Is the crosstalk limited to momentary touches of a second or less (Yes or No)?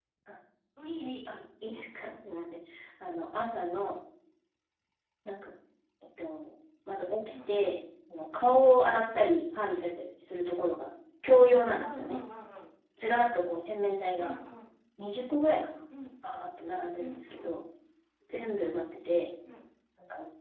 Yes